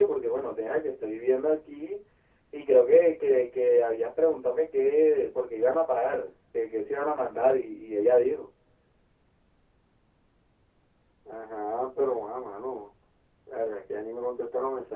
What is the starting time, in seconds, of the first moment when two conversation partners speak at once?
none

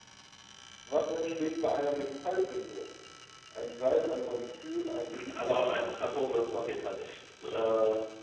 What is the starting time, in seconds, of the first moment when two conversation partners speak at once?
5.1 s

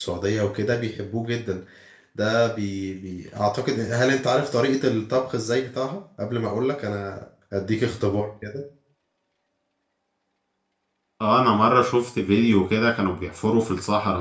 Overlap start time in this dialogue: none

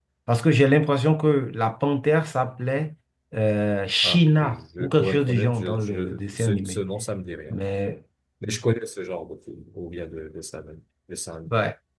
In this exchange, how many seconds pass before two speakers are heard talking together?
4.0 s

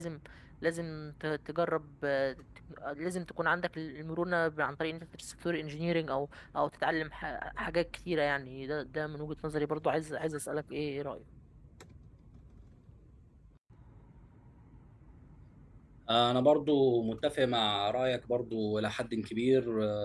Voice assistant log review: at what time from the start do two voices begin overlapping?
none

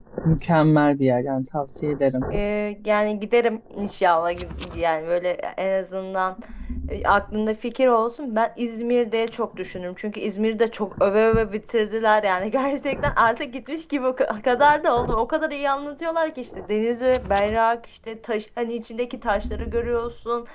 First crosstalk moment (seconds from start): none

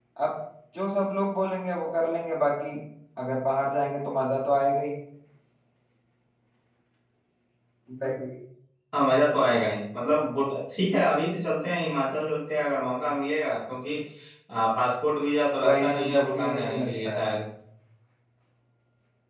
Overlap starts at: 15.6 s

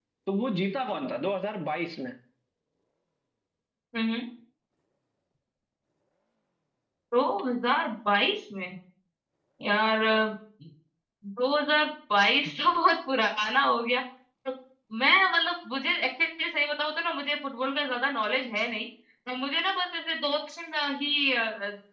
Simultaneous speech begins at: none

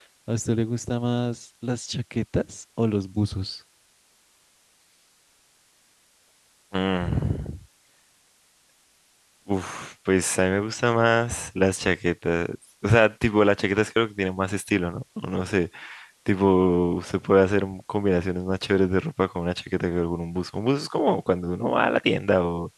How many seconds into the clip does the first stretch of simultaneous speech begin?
none

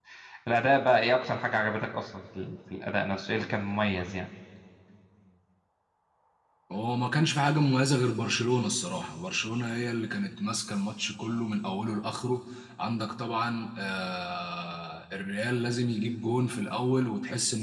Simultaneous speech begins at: none

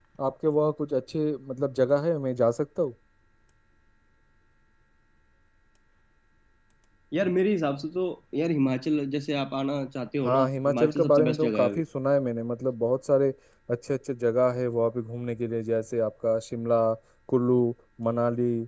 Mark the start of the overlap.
10.2 s

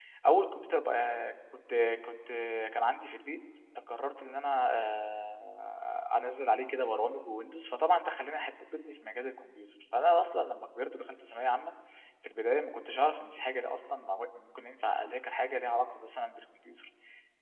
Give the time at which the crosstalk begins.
none

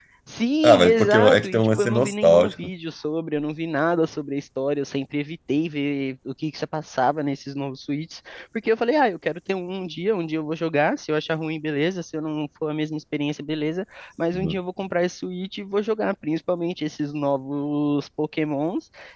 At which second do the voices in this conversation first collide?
0.6 s

